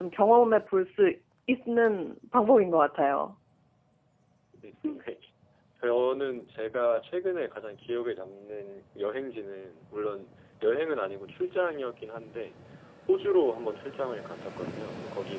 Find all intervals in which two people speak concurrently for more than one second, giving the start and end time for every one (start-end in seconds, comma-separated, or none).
none